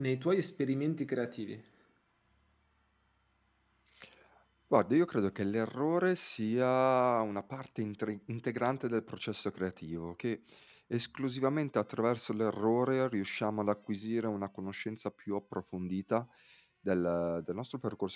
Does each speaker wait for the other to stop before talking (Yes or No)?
Yes